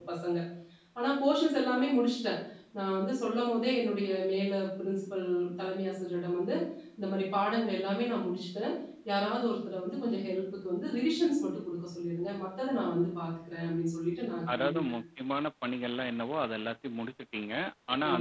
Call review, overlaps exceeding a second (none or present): none